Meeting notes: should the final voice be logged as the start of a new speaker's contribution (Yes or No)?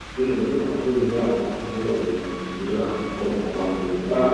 Yes